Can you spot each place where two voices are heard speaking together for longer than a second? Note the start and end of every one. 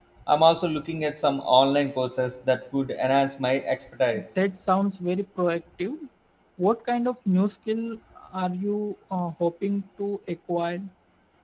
none

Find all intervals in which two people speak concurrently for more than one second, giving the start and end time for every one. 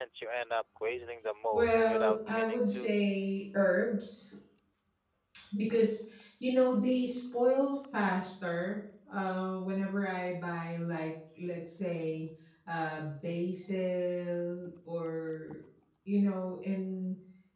1.5-2.9

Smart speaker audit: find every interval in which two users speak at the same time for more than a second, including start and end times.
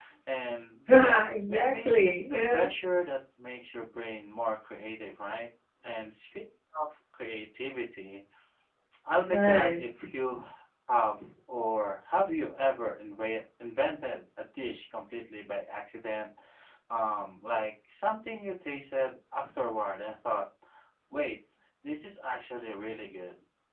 1.0-2.7

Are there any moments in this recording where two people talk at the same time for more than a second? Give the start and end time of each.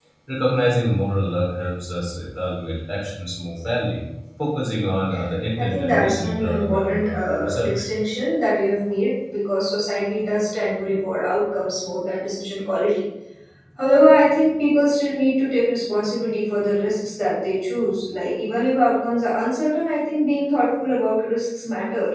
5.6-7.7

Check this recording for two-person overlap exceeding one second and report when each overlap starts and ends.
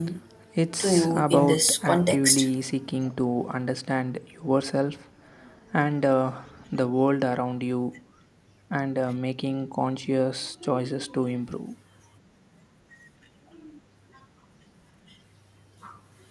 0.8-2.5

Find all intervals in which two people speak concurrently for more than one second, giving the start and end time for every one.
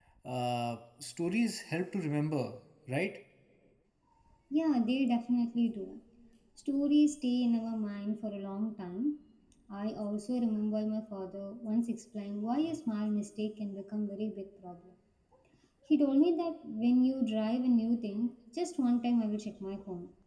none

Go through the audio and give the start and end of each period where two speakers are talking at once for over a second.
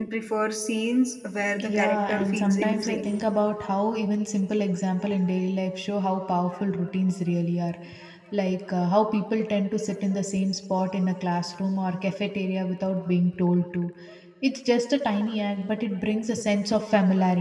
1.6-3.1

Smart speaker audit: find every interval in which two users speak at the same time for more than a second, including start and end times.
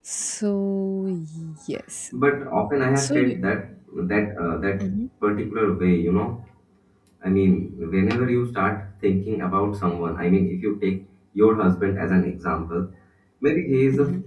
none

